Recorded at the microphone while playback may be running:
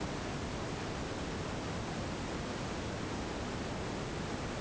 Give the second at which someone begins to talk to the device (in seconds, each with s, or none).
none